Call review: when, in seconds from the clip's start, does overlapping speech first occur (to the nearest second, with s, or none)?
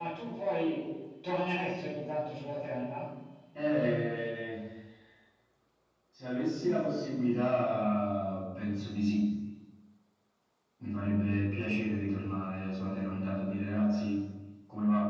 none